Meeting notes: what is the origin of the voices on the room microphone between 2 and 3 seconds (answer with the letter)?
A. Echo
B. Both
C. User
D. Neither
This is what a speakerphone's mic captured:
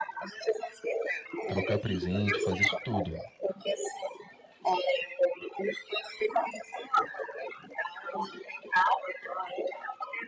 B